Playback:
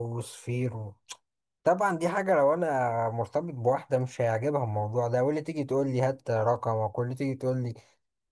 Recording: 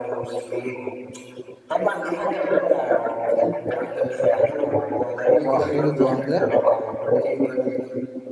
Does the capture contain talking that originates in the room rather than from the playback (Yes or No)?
Yes